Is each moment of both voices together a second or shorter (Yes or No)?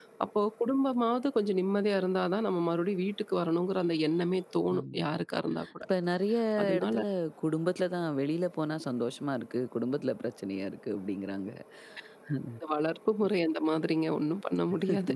Yes